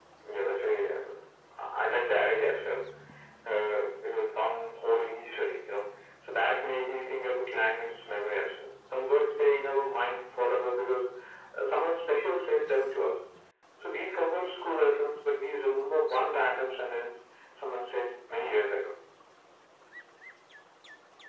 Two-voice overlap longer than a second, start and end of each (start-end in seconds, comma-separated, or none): none